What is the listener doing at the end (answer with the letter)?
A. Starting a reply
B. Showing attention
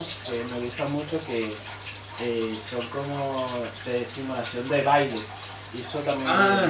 A